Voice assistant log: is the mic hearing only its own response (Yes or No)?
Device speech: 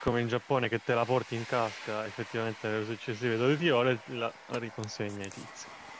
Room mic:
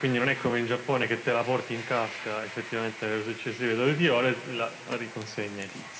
Yes